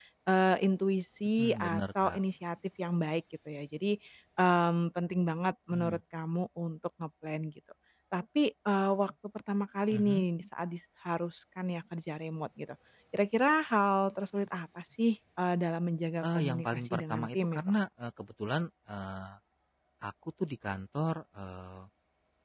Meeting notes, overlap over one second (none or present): present